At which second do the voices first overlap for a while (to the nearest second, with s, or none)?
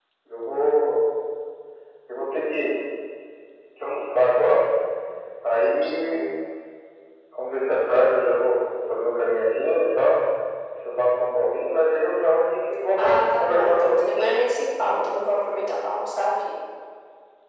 13 s